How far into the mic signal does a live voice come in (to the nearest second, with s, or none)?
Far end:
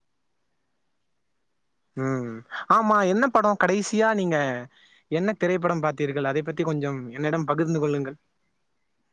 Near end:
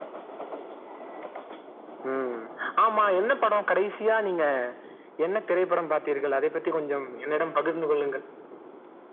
none